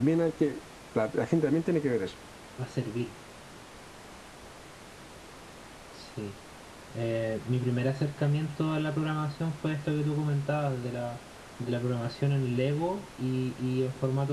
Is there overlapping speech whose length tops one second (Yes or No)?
No